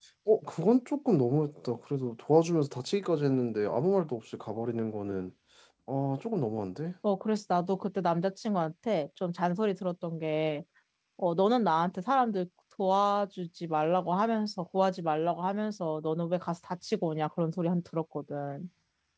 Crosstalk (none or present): none